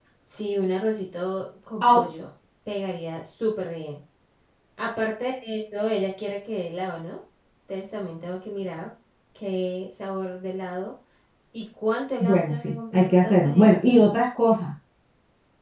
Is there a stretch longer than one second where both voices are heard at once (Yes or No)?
Yes